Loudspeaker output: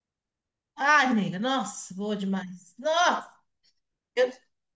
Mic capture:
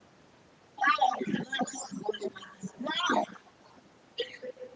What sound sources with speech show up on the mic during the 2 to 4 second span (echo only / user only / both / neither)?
echo only